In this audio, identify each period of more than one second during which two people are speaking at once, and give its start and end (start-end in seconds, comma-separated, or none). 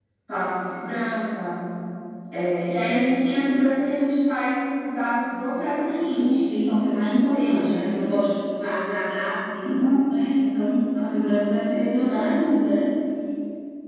6.1-7.8